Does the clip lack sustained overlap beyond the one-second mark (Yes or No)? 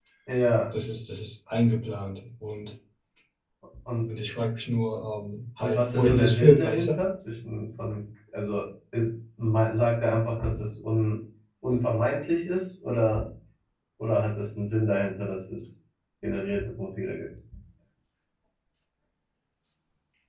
No